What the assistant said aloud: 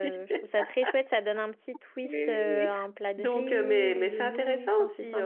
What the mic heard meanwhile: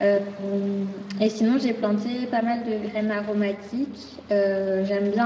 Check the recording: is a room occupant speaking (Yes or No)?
Yes